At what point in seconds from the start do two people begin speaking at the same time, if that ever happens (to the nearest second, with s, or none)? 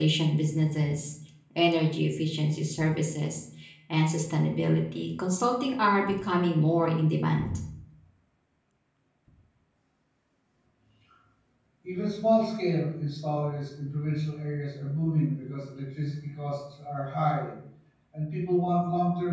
none